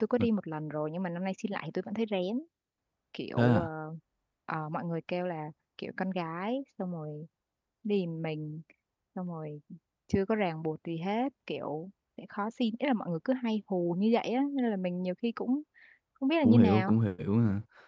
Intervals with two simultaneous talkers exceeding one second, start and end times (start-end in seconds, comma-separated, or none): none